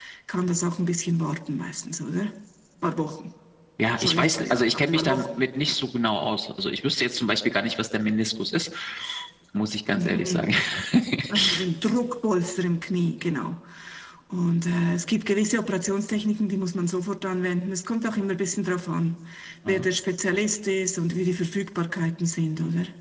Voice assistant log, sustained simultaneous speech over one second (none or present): present